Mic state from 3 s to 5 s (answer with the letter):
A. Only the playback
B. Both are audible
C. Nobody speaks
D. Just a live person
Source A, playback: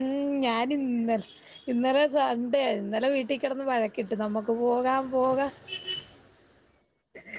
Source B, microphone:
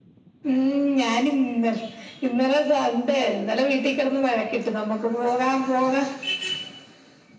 A